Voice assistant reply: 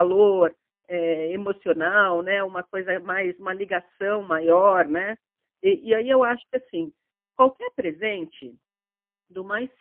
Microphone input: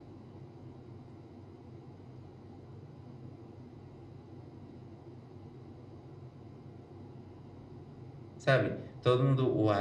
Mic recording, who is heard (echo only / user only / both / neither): user only